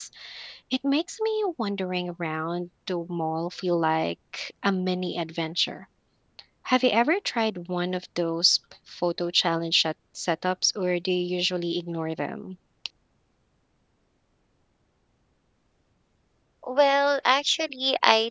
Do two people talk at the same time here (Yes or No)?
No